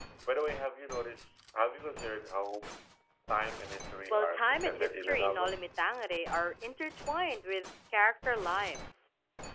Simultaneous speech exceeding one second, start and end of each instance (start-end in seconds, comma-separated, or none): 4.1-5.5